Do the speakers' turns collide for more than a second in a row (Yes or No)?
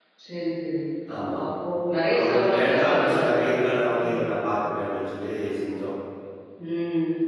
Yes